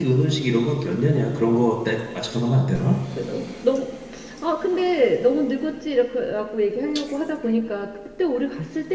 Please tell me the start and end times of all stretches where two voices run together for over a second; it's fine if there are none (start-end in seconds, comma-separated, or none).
none